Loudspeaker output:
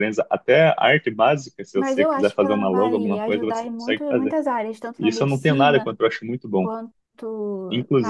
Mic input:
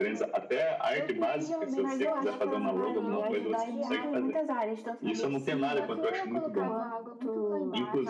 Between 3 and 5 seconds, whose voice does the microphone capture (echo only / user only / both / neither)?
both